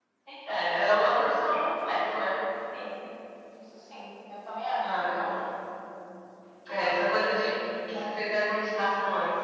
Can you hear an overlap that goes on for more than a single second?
No

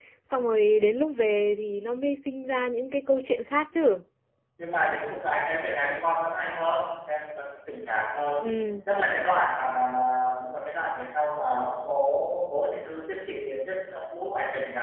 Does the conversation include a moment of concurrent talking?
No

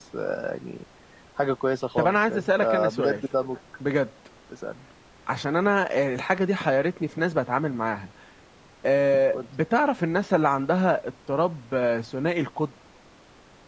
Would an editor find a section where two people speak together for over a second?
Yes, from 2.0 s

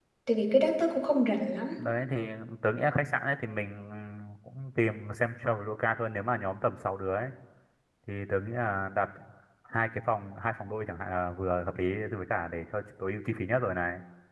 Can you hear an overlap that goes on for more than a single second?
No

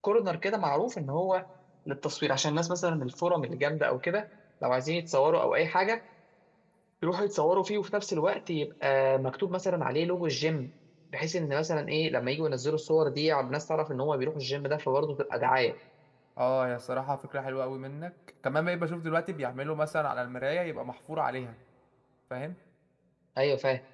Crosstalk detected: No

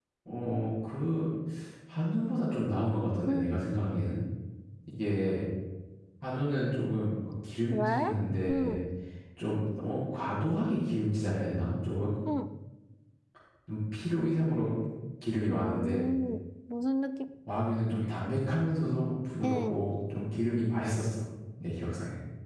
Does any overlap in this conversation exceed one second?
No

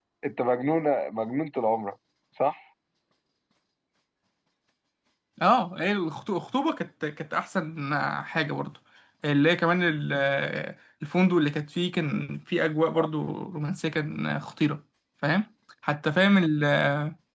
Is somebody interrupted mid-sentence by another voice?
No

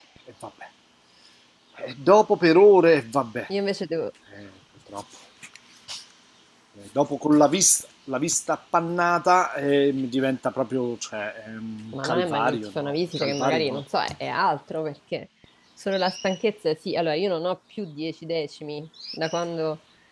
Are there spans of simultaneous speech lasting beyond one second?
Yes, from 11.9 s

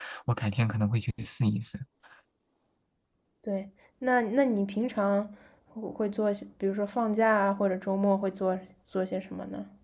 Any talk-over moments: No

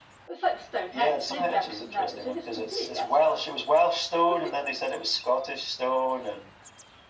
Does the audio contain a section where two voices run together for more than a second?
Yes, from 0.9 s

